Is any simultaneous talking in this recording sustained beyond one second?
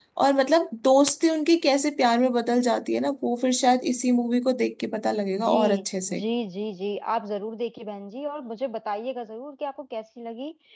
No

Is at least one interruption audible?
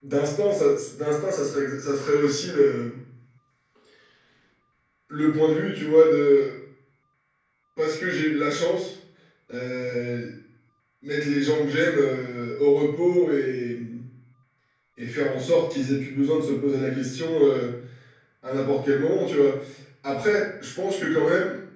No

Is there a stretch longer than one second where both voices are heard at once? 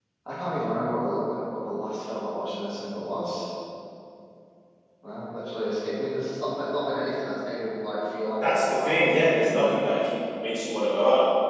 Yes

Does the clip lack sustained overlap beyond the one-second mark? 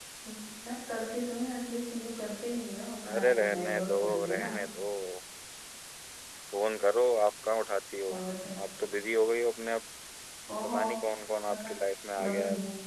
No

